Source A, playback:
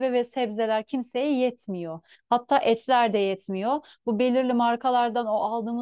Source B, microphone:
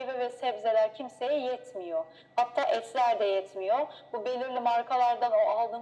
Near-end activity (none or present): none